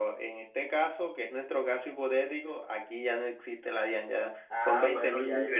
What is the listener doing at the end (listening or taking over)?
taking over